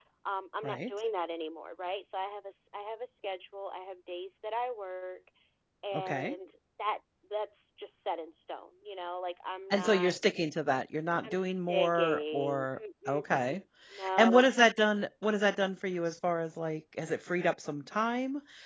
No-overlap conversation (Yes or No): No